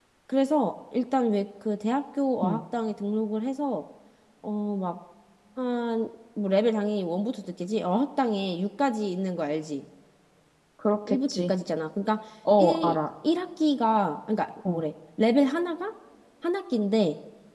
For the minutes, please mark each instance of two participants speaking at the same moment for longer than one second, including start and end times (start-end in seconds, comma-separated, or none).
none